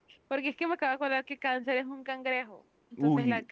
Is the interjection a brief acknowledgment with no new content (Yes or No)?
No